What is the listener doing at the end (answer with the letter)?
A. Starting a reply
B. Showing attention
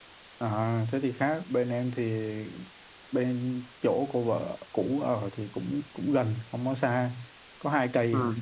B